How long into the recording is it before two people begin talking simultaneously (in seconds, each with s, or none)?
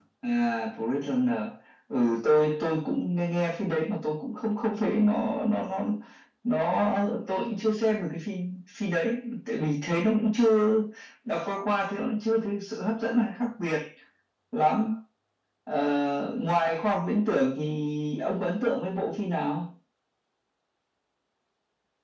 none